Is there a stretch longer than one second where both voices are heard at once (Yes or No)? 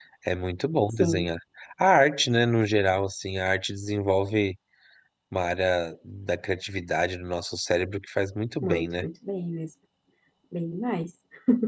No